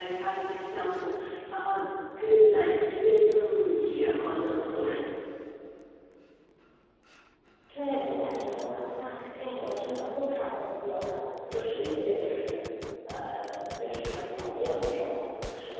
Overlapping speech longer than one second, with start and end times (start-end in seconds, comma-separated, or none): none